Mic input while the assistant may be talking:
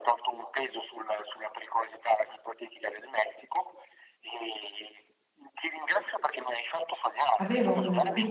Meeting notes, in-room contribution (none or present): present